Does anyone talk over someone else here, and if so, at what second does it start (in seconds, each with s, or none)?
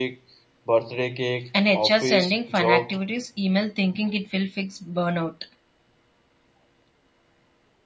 1.5 s